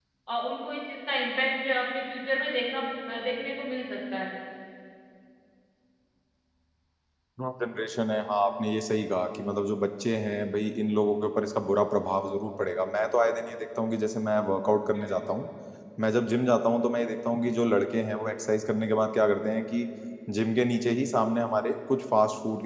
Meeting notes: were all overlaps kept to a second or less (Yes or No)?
Yes